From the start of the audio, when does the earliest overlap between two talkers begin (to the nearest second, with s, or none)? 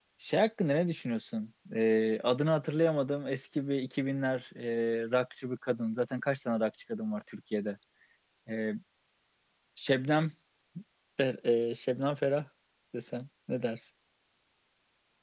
none